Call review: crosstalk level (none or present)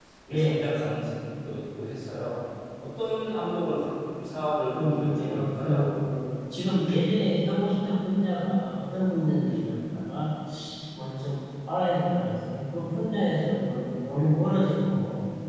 present